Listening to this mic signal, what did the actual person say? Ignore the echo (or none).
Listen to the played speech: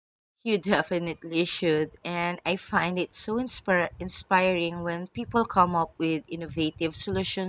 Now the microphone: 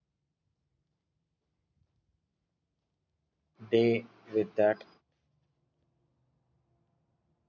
day with that.